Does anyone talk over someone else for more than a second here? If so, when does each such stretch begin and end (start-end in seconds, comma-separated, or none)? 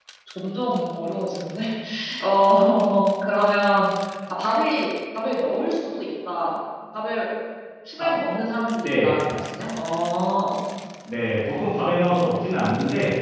none